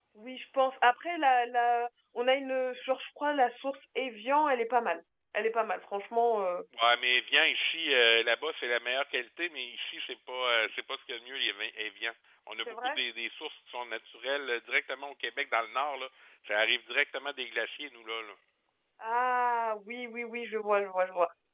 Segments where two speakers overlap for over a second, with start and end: none

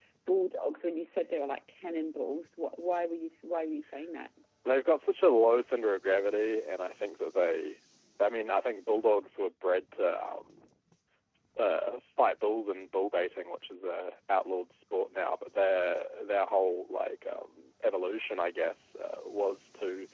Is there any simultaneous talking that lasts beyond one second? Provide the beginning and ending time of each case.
none

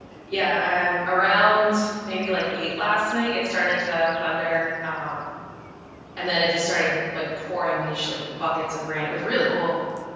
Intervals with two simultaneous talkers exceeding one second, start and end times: none

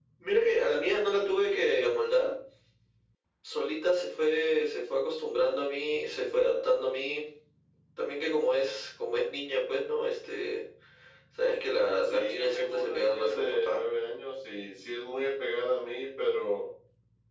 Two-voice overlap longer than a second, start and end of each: 12.0-13.8

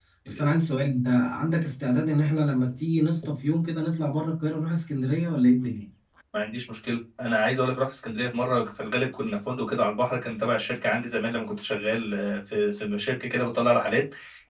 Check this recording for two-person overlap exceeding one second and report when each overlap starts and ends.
none

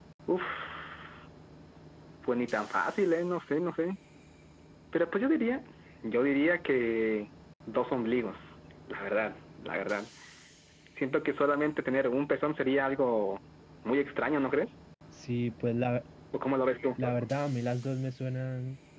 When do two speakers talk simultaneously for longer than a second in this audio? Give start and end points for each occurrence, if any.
none

